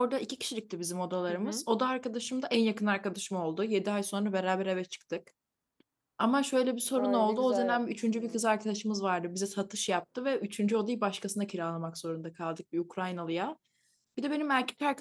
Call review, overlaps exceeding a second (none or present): present